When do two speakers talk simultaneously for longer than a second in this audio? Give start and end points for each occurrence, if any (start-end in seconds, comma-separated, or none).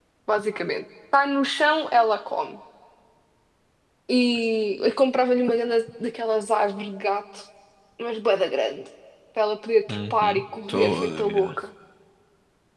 9.9-11.5